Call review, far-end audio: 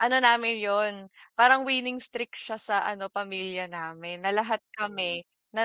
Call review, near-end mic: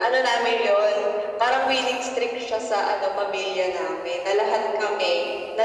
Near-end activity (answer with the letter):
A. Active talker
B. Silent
B